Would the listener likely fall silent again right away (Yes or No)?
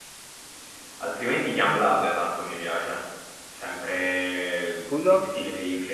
Yes